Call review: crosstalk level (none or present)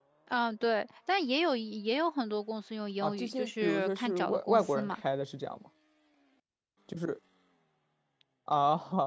present